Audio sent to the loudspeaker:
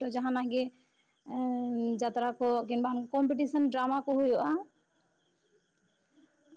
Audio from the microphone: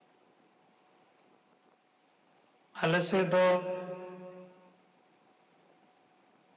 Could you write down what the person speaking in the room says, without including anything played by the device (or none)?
ᱟᱞᱮ ᱥᱮᱫ ᱫᱚ